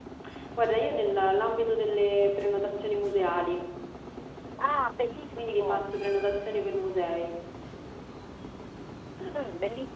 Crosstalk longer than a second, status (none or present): none